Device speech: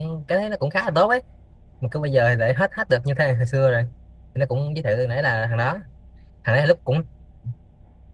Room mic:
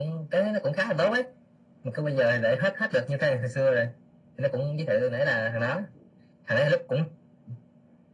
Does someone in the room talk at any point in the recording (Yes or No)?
No